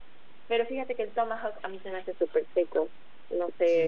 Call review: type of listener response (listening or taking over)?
taking over